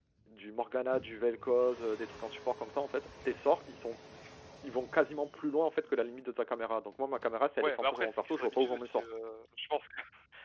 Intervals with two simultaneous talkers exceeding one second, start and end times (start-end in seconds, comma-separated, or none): 7.6-9.0